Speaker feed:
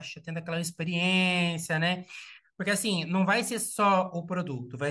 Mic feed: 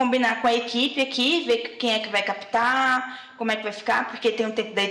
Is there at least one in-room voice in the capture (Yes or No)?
Yes